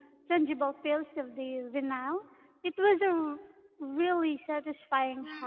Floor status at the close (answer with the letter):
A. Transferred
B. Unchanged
A